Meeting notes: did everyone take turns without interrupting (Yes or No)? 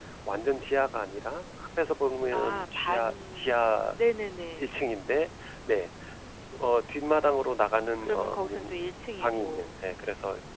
No